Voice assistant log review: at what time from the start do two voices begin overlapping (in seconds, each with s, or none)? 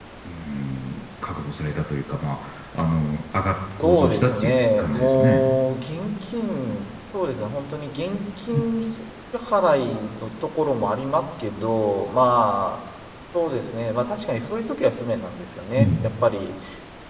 3.8 s